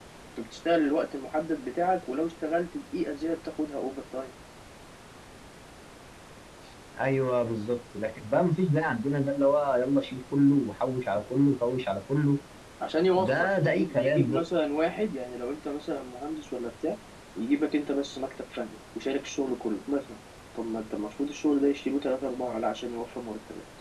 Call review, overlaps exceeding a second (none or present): present